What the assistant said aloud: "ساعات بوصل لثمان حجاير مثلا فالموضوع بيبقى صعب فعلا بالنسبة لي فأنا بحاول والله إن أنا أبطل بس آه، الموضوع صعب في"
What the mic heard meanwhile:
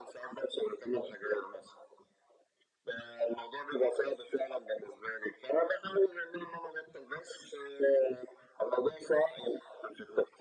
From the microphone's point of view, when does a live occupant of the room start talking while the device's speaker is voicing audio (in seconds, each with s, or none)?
none